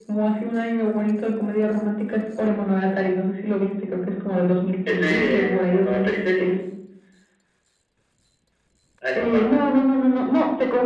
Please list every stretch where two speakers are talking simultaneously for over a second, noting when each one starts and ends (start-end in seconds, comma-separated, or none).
4.9-6.5